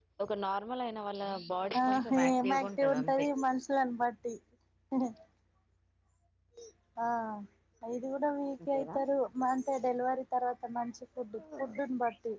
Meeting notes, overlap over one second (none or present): present